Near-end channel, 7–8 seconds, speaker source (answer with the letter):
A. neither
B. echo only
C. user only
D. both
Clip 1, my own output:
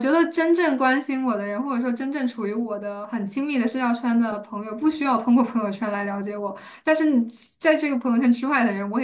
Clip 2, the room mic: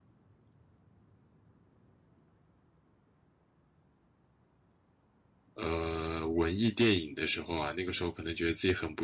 C